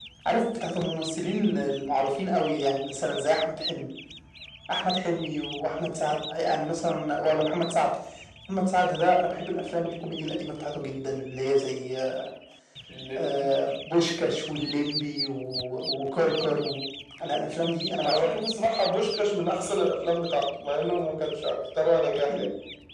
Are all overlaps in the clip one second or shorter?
Yes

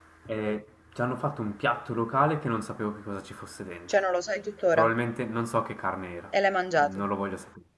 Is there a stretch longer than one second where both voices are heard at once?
No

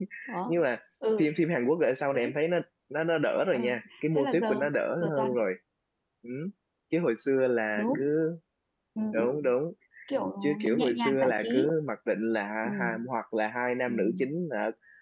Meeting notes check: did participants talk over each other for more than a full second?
Yes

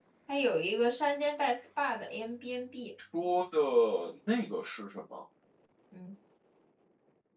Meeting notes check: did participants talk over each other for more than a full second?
No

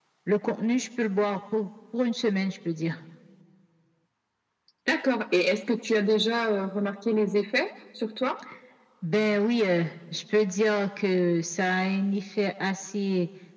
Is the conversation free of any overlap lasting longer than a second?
Yes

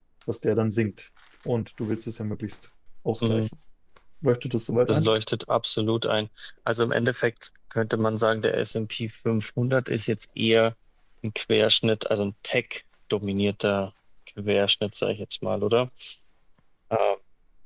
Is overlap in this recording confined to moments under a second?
Yes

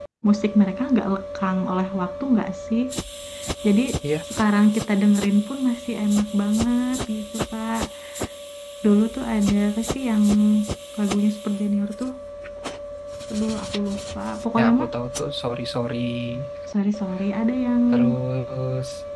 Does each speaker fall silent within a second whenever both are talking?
Yes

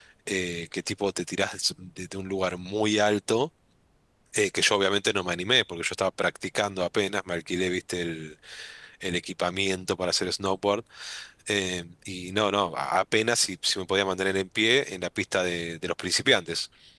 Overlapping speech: No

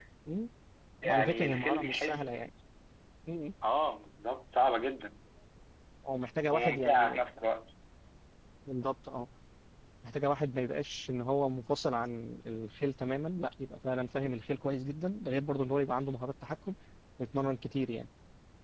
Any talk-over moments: Yes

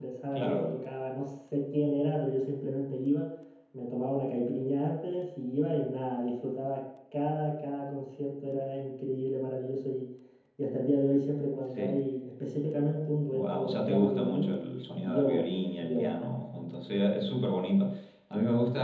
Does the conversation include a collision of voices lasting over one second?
Yes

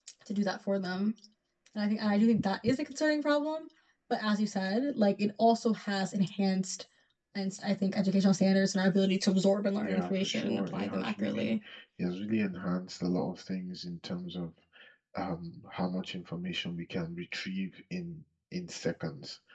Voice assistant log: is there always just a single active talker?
No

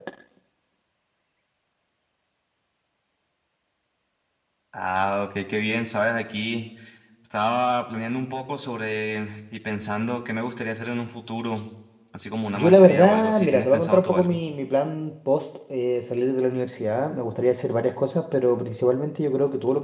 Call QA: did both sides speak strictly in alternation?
No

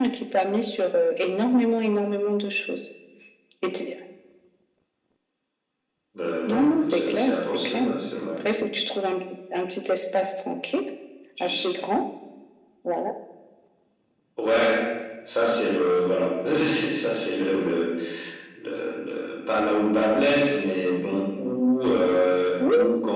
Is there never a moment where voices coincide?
No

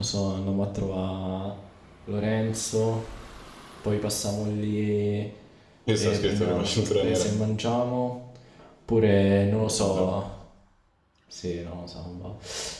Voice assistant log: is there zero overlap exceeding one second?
No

